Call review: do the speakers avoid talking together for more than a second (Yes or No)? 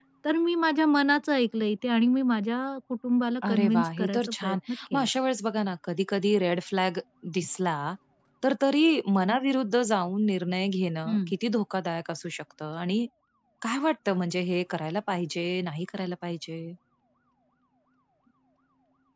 No